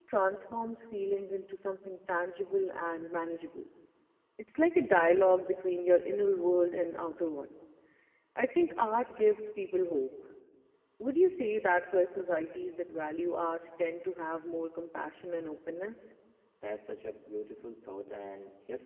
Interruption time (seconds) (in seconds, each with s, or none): none